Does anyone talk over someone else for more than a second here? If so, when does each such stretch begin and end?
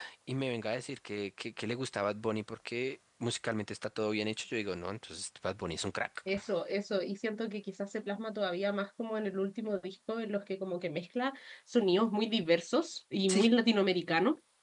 none

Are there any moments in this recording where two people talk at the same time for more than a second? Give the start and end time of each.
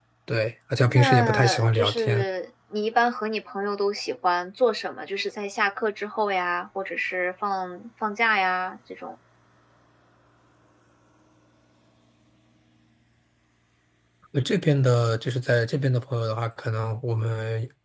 0.9-2.2

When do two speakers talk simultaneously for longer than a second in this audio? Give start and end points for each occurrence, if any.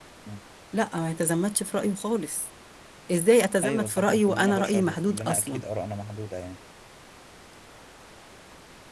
3.6-5.6

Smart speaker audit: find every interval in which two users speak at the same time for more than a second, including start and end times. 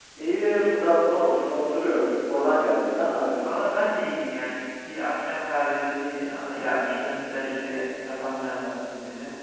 none

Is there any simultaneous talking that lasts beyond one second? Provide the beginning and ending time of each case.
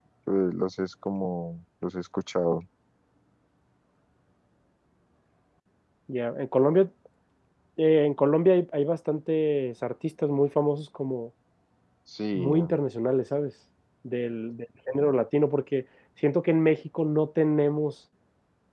none

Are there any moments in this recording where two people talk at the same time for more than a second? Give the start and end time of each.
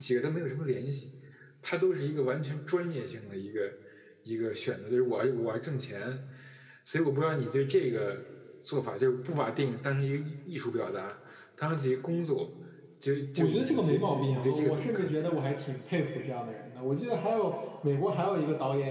13.4-15.1

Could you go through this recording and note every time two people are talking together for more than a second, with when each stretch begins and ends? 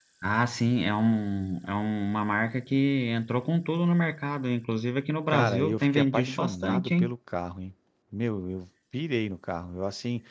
5.3-7.1

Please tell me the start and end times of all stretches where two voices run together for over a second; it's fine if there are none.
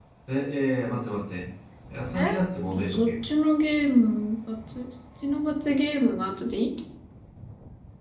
none

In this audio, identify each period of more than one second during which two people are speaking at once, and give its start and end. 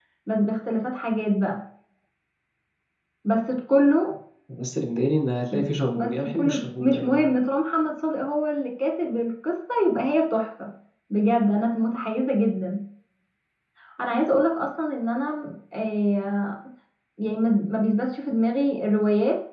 6.0-7.3

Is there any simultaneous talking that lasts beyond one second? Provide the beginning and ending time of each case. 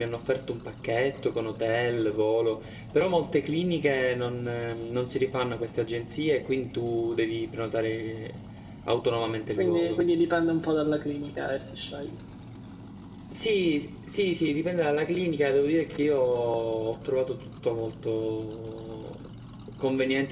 none

